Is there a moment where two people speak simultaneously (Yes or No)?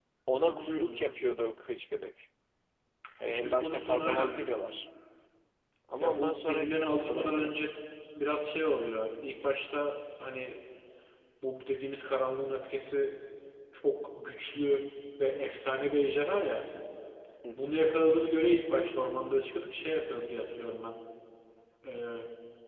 Yes